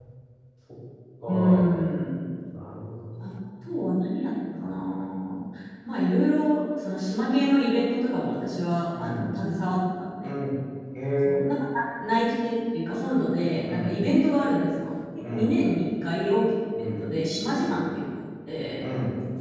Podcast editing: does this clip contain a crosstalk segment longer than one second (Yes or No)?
No